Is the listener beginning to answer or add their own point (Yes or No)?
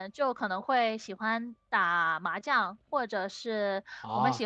No